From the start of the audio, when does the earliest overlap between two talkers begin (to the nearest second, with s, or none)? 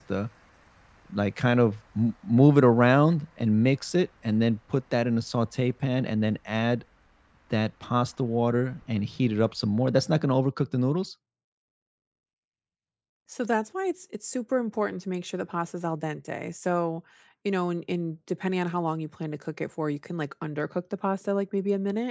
none